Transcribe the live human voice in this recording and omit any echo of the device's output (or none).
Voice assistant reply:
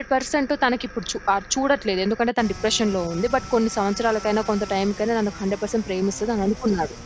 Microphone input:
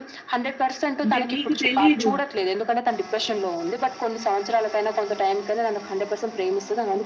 అంటే మీకు తెలీదు.